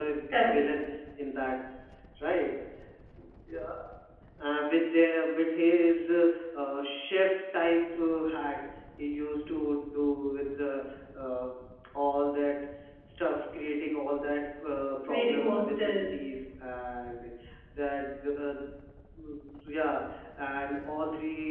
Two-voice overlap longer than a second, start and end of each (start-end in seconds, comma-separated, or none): 15.1-16.3